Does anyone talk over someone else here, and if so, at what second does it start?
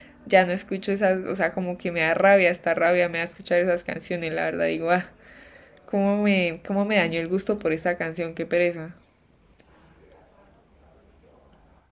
none

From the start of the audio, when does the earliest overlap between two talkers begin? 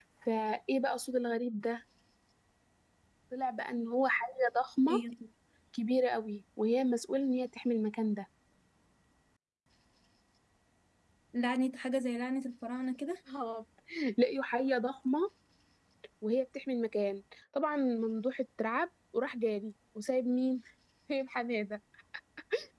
none

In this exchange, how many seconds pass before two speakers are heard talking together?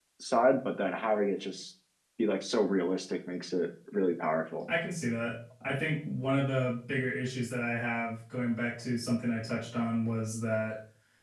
none

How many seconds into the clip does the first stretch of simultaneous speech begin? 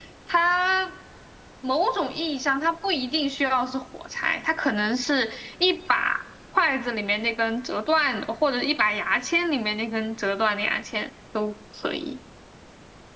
none

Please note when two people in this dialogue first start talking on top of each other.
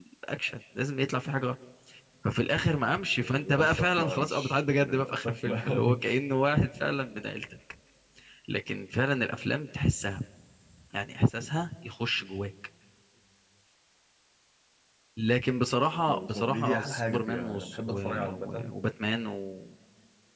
3.2 s

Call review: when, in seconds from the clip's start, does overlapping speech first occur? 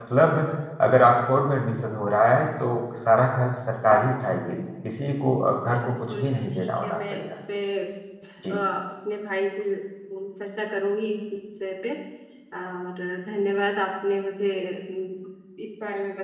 5.8 s

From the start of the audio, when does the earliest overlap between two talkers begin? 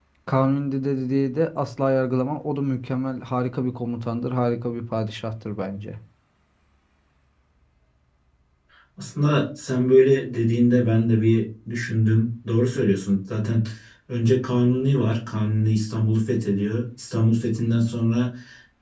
none

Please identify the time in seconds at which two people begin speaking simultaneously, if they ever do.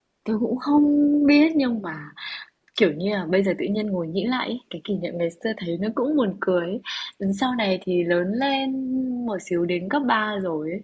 none

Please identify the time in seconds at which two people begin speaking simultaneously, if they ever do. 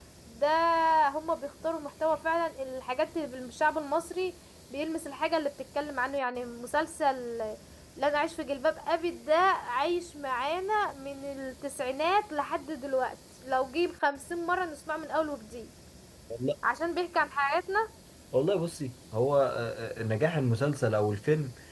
none

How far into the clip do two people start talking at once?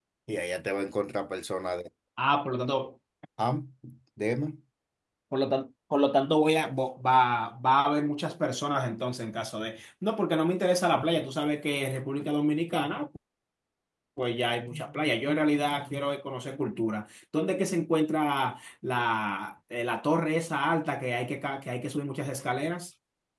none

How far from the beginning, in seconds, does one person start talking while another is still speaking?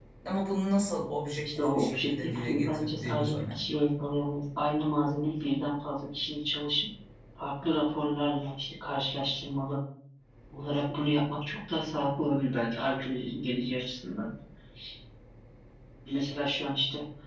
1.4 s

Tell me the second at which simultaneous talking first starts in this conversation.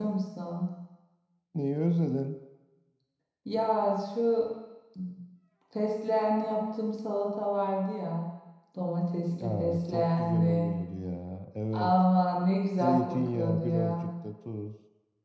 9.4 s

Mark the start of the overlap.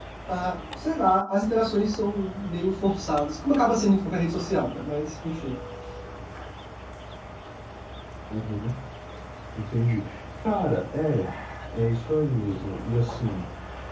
none

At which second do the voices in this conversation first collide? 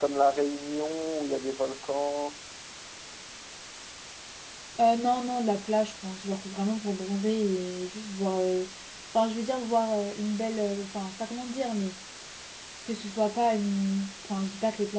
none

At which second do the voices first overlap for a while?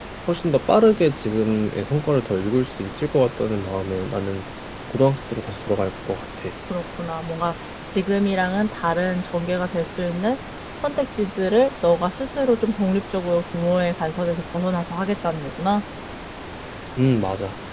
none

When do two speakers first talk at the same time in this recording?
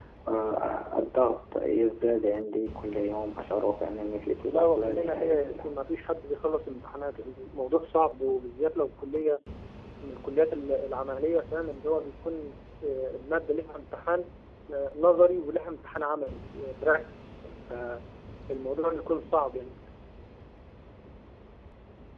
4.4 s

